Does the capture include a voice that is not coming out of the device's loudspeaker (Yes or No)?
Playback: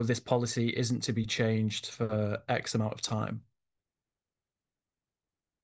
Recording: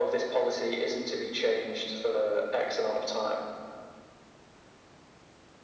No